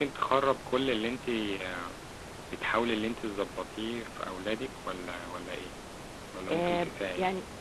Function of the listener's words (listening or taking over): taking over